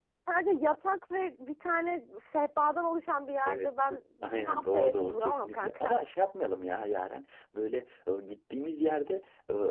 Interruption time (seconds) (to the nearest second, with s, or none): 3 s